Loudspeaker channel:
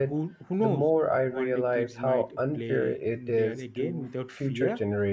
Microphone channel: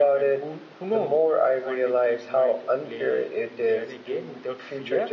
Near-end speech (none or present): none